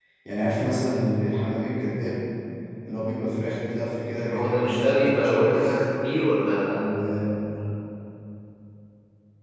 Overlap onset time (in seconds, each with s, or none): 4.2 s